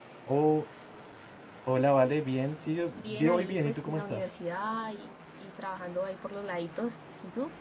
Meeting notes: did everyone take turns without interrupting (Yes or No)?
No